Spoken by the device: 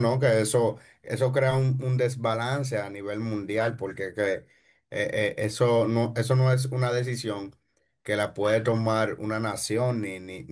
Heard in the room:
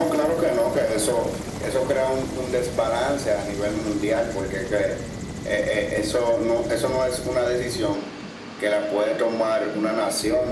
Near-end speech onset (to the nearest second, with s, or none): none